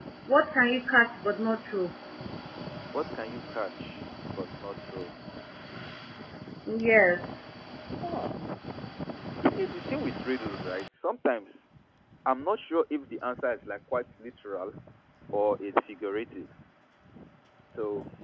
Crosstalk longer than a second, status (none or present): none